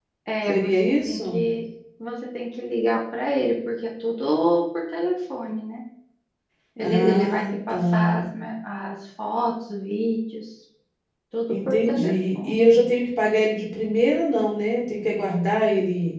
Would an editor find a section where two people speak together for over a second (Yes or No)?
Yes